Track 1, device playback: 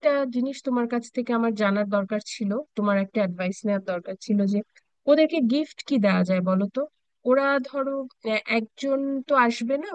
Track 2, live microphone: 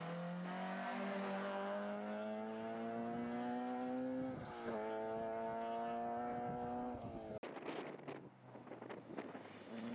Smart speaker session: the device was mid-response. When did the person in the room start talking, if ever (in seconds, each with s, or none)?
none